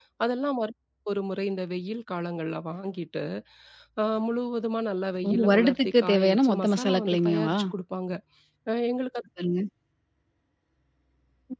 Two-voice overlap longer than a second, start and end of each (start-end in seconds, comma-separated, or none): 5.2-7.6